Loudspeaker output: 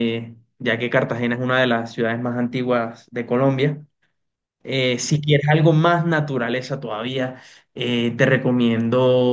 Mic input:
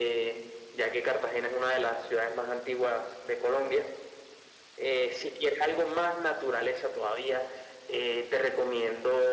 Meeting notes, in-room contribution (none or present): none